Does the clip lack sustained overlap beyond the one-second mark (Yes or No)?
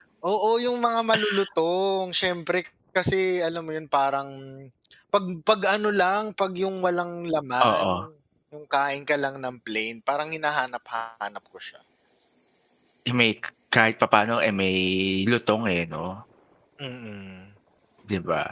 Yes